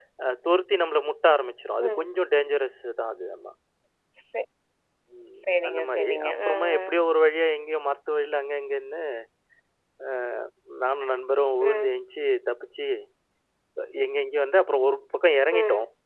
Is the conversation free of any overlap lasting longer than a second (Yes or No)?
No